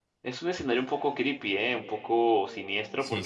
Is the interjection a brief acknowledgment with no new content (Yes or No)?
Yes